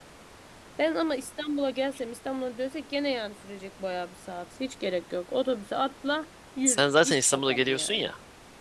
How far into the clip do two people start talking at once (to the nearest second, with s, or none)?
7 s